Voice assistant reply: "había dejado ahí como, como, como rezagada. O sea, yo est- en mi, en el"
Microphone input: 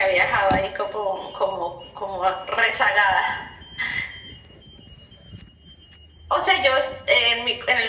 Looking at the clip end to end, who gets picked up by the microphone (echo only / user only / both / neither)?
echo only